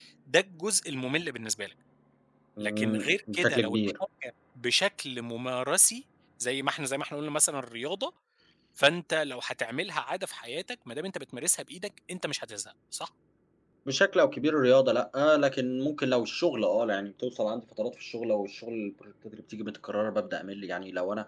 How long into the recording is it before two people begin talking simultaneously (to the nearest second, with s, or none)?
3 s